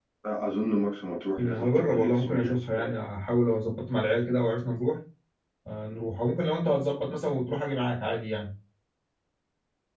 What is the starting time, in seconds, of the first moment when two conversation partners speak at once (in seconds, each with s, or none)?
1.4 s